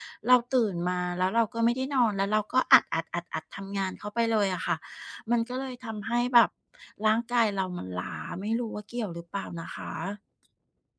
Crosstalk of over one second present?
No

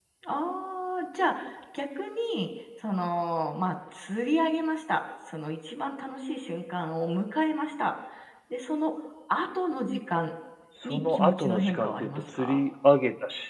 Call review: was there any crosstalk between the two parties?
Yes, from 10.8 s

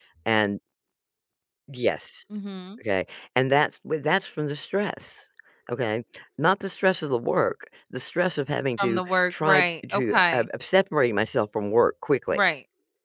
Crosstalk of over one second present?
Yes, from 8.8 s

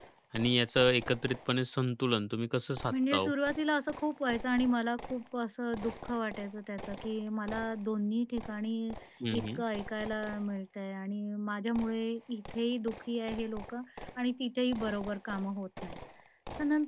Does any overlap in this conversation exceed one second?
No

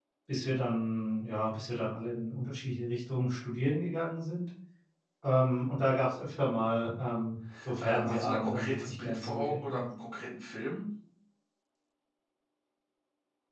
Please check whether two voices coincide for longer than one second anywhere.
Yes, from 7.8 s

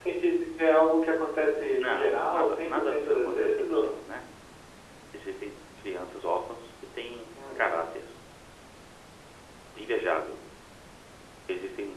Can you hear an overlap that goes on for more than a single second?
Yes, from 1.8 s

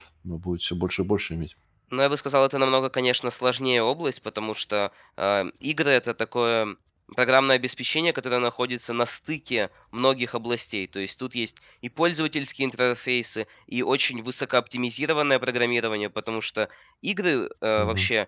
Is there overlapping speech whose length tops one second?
No

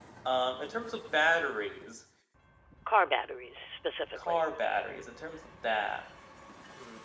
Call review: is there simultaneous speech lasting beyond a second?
No

